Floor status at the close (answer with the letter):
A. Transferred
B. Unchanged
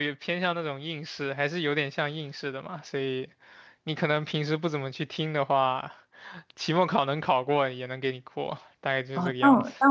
A